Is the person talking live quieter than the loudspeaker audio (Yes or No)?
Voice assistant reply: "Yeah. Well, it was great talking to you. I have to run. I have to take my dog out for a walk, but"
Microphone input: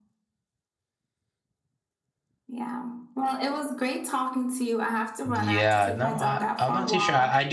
No